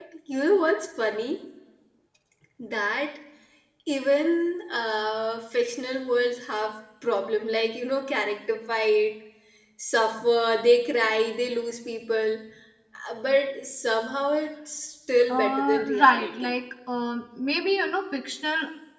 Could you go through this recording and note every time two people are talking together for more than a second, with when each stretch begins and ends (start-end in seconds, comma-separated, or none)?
15.3-16.5